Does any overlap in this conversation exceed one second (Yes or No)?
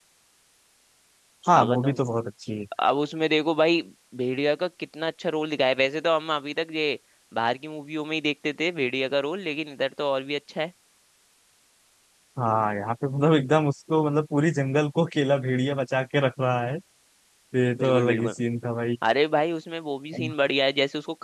No